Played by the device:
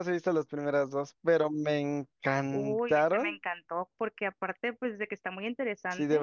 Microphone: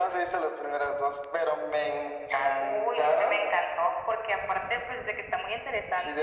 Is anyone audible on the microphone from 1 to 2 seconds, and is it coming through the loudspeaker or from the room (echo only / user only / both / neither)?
echo only